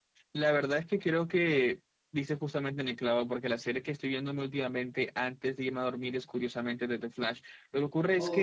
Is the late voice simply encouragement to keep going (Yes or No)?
Yes